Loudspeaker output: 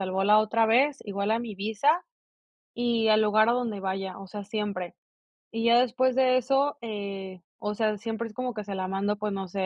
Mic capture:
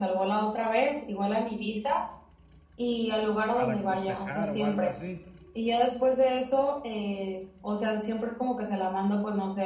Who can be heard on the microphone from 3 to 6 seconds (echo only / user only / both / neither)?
both